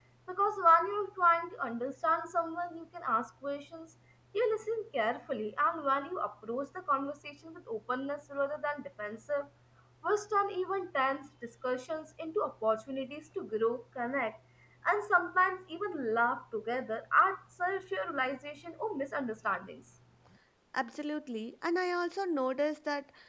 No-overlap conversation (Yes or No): Yes